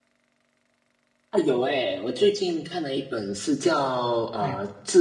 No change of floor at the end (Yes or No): Yes